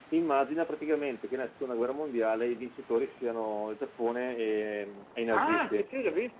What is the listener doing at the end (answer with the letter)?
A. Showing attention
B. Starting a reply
B